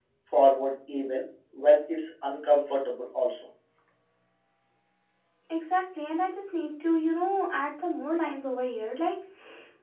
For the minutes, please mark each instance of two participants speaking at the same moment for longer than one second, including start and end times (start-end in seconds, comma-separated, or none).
none